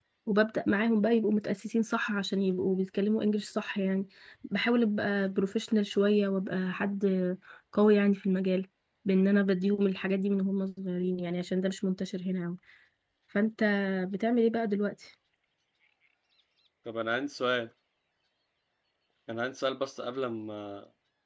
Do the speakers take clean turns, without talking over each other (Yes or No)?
Yes